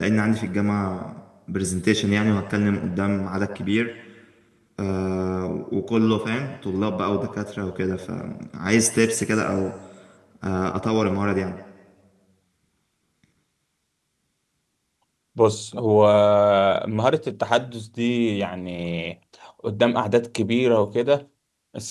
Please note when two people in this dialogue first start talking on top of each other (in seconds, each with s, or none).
none